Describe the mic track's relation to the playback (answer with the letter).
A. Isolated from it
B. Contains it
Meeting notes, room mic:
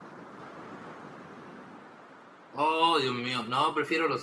A